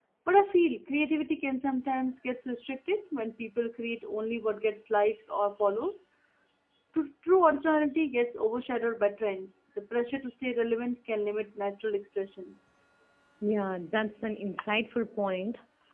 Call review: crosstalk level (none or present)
none